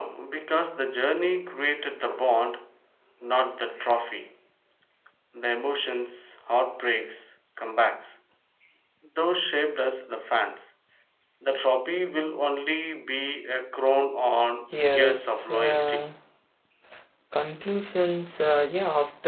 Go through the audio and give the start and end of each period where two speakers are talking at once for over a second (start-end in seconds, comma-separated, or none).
14.8-16.1